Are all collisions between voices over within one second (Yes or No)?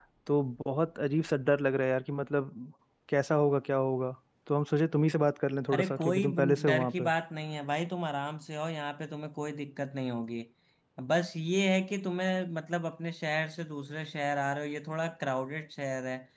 No